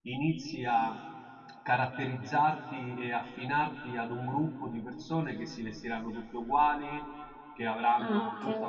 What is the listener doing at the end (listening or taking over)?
listening